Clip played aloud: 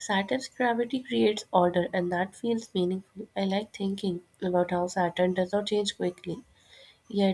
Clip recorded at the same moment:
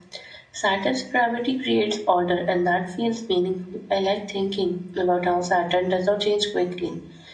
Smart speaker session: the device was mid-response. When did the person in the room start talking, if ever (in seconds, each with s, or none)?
none